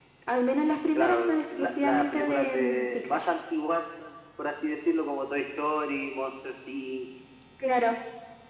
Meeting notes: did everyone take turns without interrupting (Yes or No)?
No